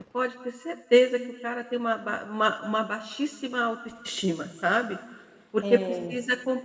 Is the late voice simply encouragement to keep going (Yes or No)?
Yes